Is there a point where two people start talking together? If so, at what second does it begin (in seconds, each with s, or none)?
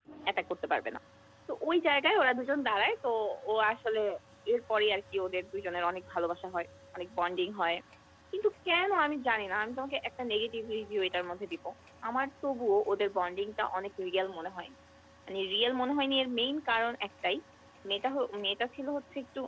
none